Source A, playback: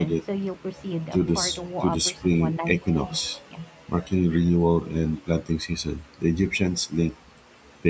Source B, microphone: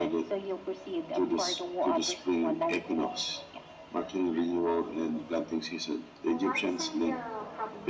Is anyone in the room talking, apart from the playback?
Yes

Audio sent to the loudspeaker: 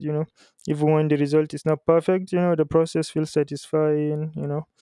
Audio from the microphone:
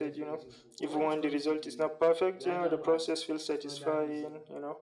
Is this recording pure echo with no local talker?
No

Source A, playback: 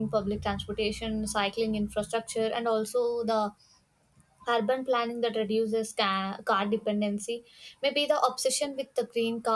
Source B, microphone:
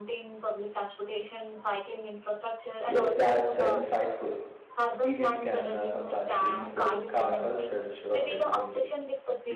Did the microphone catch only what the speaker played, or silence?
No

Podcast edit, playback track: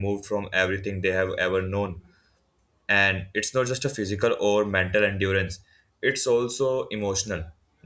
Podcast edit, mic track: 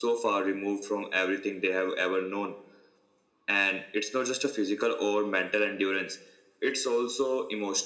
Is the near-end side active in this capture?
No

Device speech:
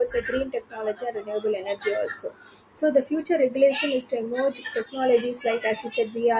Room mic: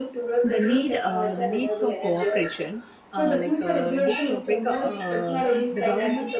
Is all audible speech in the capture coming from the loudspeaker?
No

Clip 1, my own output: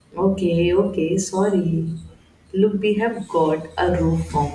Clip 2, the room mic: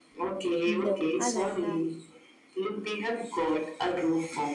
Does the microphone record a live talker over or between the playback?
Yes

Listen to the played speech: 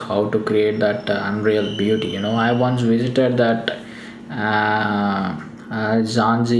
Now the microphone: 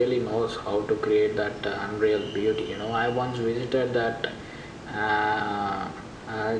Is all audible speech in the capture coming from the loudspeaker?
Yes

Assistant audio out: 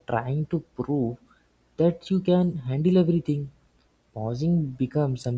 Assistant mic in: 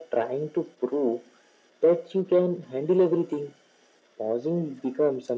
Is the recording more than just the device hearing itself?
No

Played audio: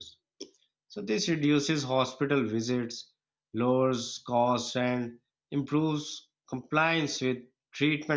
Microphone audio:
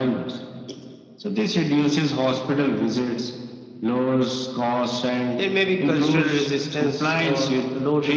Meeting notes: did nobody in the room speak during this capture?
No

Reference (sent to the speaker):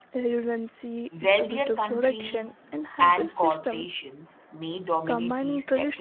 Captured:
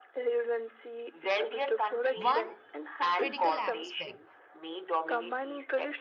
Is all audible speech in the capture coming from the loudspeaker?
No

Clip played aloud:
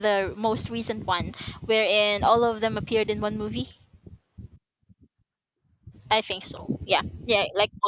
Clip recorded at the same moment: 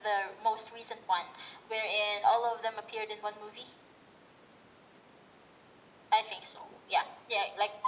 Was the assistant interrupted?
No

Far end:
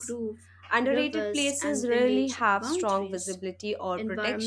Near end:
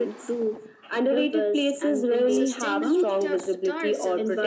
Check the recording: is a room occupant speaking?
Yes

